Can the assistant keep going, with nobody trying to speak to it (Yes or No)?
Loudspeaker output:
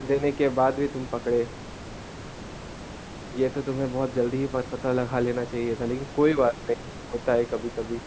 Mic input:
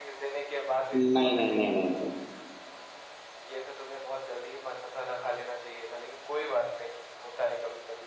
No